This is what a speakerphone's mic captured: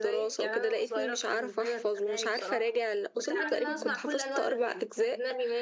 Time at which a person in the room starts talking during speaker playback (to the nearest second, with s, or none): 3 s